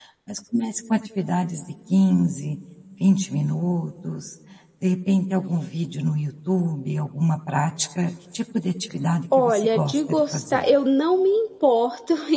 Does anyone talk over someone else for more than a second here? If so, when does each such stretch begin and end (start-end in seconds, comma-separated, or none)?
9.4-10.6